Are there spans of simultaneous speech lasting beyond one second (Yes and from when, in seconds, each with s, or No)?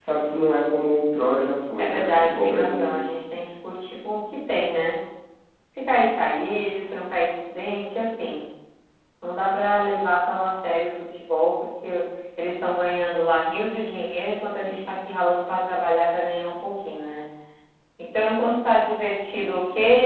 Yes, from 1.8 s